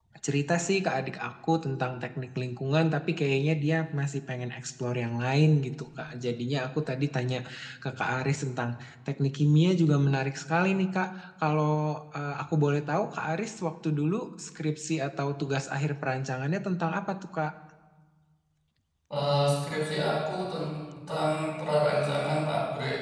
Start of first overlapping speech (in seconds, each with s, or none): none